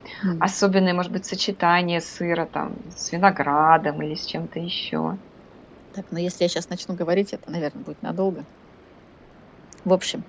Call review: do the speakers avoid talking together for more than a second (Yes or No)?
Yes